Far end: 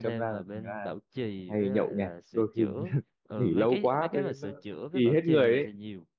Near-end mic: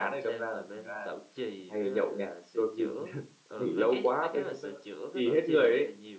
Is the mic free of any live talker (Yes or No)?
Yes